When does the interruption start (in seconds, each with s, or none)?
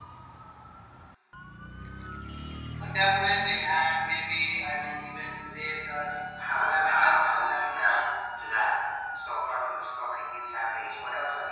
6.4 s